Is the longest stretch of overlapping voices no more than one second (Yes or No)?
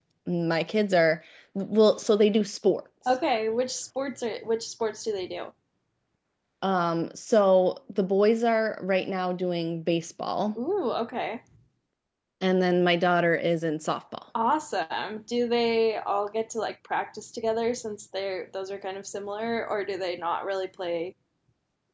Yes